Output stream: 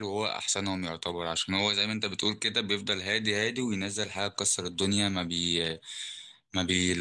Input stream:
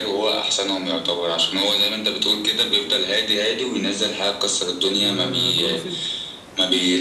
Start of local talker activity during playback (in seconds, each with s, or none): 5.0 s